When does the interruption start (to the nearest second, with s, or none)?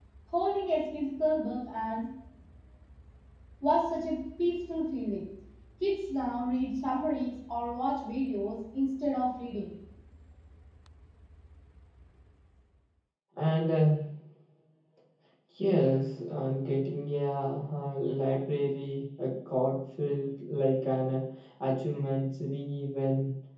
none